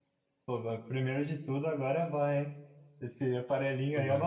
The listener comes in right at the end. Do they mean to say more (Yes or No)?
No